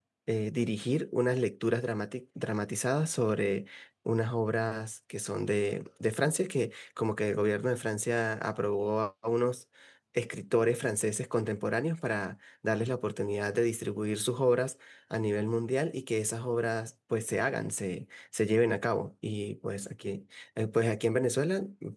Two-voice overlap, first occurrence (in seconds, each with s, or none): none